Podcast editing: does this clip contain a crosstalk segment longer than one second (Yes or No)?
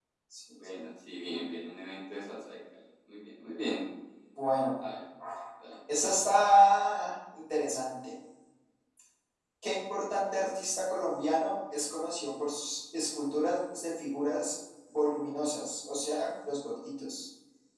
No